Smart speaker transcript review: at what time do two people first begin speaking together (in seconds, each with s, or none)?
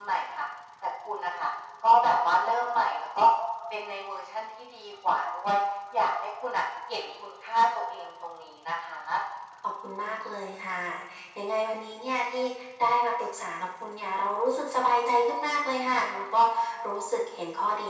none